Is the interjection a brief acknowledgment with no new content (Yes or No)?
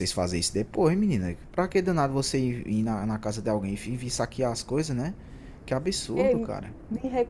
No